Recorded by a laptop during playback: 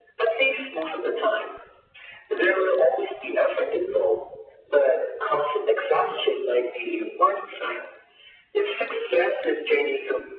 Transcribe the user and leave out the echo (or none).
none